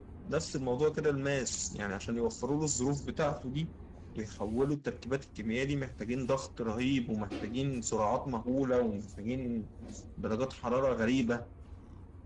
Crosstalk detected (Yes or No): No